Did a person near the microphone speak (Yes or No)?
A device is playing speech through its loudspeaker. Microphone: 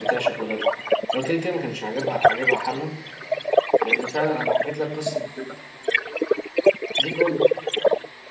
Yes